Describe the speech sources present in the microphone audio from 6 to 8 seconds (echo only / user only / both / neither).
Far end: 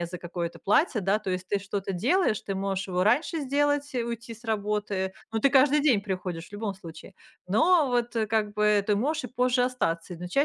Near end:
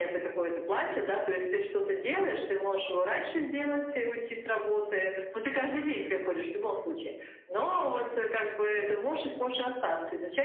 echo only